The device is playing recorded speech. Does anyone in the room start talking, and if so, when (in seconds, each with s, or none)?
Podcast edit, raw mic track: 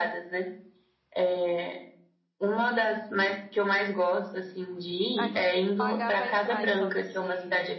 5.2 s